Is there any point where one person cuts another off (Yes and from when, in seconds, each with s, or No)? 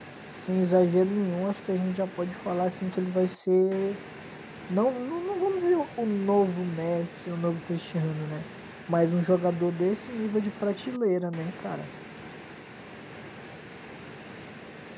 No